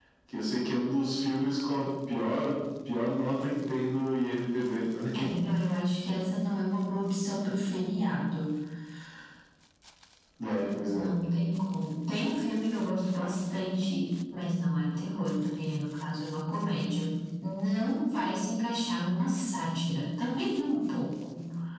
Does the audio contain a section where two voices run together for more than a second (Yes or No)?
No